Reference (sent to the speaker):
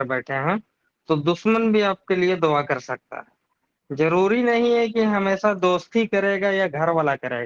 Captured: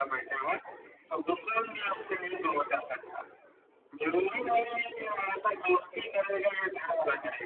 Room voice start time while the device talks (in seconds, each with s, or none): none